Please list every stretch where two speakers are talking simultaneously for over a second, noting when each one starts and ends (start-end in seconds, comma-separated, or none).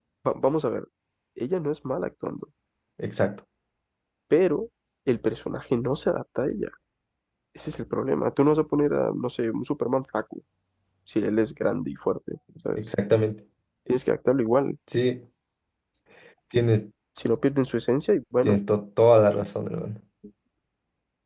none